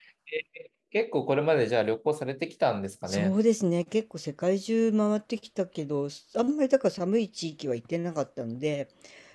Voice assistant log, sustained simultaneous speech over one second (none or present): none